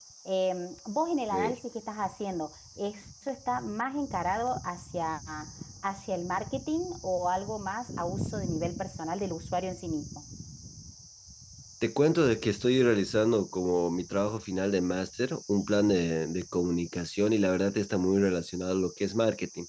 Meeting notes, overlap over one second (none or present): none